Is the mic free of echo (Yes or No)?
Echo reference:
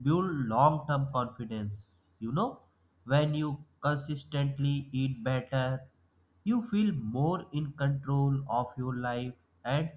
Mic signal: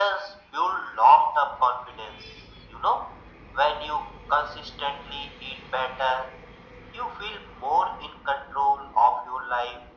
No